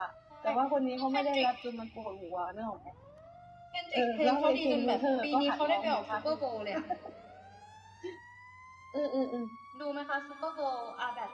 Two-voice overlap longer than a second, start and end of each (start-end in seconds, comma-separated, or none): 3.9-6.4